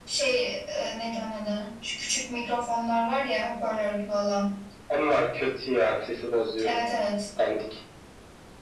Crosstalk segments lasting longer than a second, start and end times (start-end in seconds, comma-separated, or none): none